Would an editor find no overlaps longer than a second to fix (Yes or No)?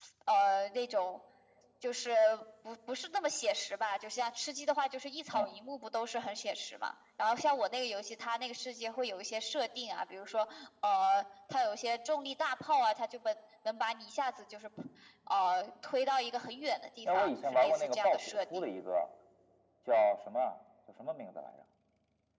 No